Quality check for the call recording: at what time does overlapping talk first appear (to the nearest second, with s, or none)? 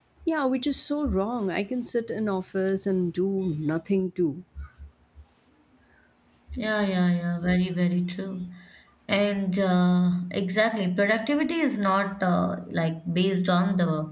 none